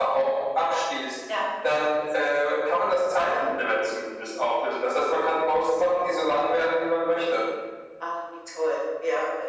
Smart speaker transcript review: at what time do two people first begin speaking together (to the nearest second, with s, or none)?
none